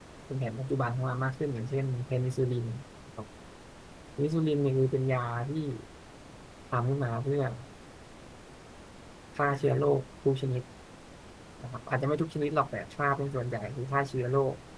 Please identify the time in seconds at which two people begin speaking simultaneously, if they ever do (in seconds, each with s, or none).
none